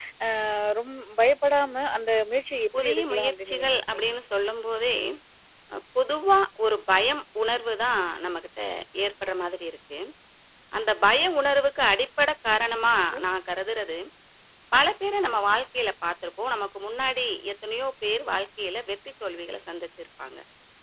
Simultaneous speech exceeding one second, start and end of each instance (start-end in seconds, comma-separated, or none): 2.8-4.1